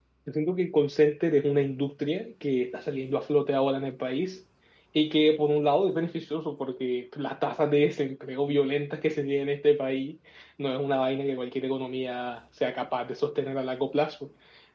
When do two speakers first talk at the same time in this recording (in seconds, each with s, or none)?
none